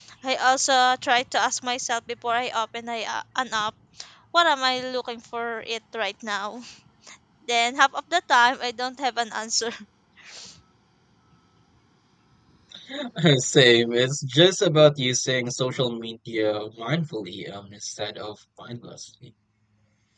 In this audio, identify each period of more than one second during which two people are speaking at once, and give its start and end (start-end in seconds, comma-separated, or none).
none